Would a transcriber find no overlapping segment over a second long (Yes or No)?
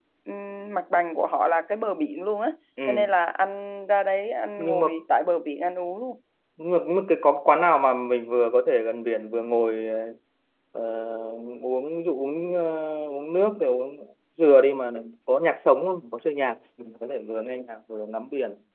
Yes